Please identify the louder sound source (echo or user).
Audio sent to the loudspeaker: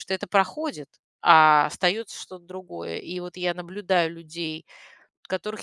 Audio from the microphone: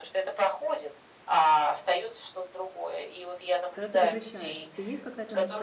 echo